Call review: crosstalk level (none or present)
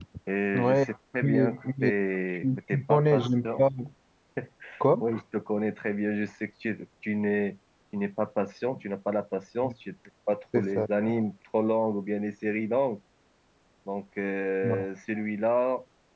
present